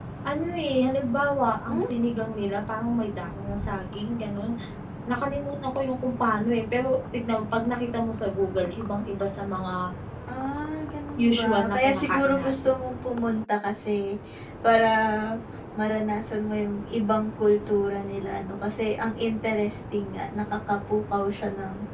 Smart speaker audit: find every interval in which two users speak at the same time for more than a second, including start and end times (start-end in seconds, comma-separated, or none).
11.2-12.8